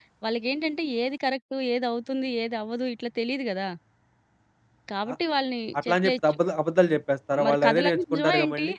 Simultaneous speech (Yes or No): Yes